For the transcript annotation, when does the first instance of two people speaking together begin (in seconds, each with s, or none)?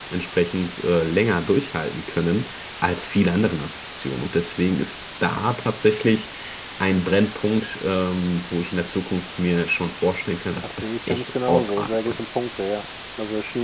10.6 s